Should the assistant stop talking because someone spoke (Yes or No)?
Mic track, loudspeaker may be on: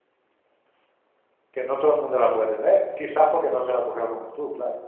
Yes